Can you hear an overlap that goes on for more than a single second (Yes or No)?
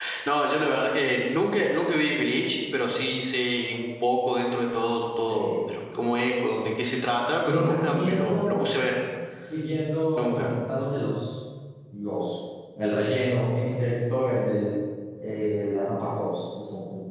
Yes